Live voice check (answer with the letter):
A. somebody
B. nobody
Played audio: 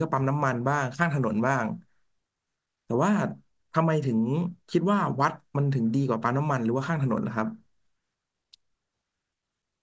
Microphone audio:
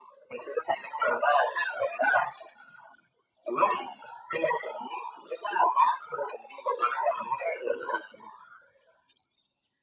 B